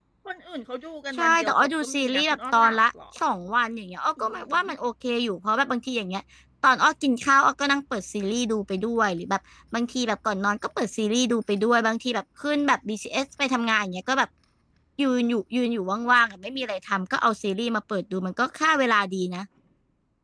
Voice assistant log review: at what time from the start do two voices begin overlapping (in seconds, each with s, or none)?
1.1 s